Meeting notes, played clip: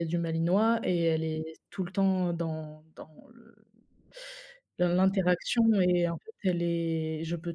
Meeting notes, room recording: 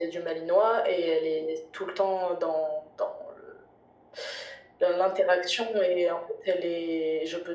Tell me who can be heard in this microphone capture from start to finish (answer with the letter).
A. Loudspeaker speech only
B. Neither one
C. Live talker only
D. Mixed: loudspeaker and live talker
A